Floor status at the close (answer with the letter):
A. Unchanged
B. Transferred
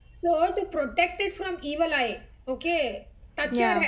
A